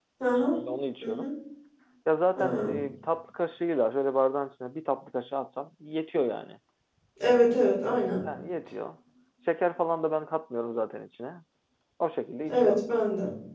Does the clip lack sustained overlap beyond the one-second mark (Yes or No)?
Yes